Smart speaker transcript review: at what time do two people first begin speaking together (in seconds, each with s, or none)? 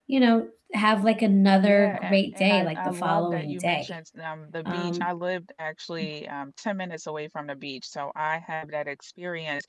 1.5 s